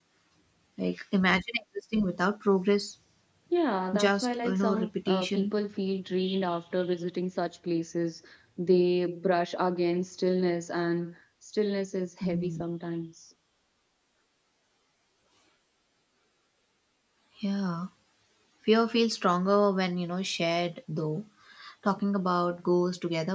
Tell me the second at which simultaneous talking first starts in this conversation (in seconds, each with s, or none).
3.9 s